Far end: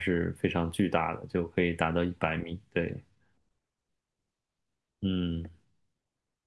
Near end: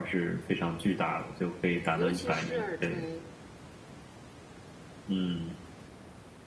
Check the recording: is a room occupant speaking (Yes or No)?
Yes